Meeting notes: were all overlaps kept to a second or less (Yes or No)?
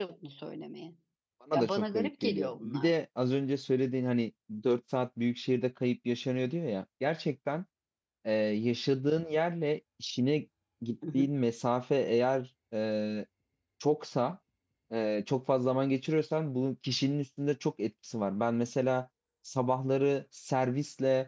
No